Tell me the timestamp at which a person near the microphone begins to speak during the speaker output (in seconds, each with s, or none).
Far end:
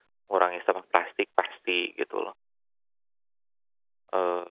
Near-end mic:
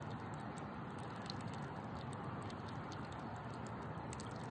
none